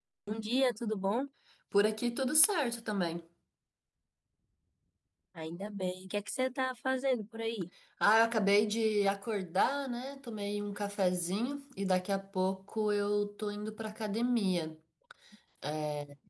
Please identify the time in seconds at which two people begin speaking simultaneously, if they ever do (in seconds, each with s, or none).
none